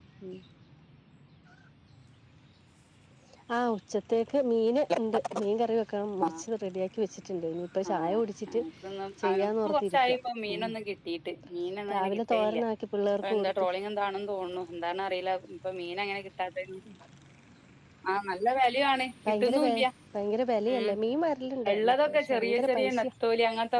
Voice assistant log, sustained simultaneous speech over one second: present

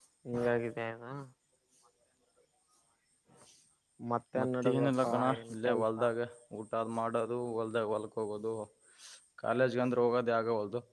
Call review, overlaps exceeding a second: present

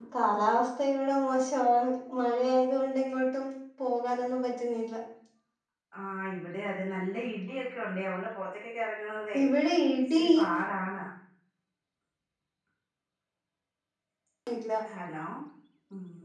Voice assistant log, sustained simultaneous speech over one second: none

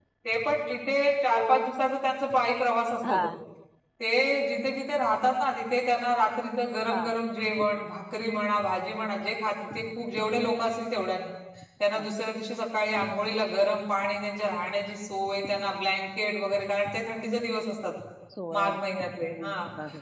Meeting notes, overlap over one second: none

